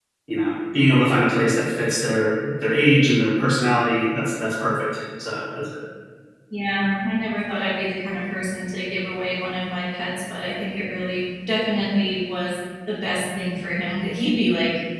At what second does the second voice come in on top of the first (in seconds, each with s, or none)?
none